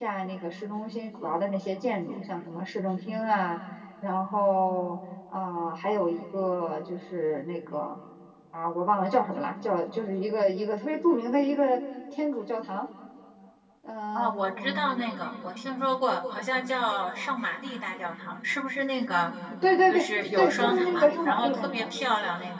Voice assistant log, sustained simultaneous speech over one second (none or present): present